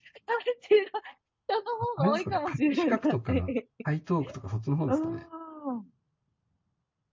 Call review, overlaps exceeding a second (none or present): present